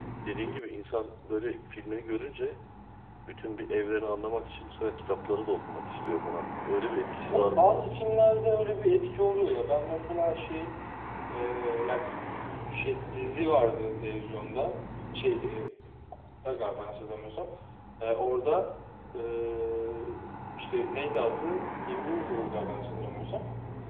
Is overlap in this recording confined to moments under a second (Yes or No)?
Yes